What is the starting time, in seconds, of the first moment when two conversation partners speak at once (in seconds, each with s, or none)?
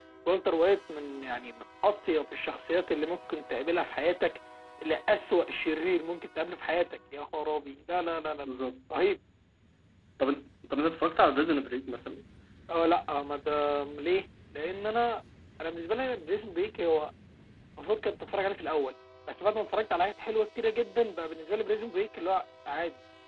none